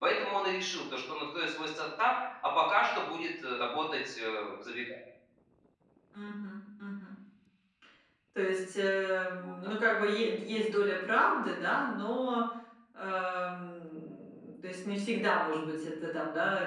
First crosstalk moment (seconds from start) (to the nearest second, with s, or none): none